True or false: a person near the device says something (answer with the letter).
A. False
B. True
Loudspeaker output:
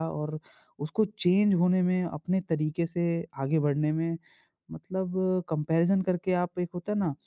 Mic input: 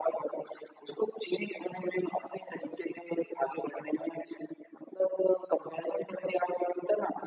A